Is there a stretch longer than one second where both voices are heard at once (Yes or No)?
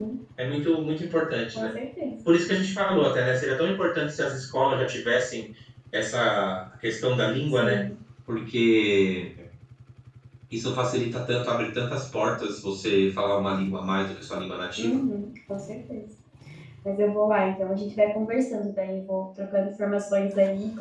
No